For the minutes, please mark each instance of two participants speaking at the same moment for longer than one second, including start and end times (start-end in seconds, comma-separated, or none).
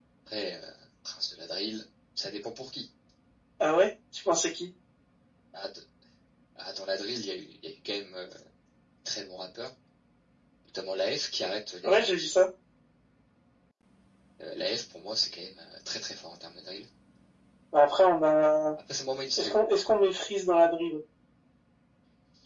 none